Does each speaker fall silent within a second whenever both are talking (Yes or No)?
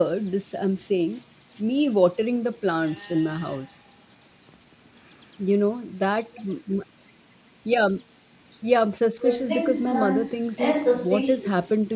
No